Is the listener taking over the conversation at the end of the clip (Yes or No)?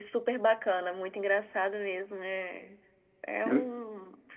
No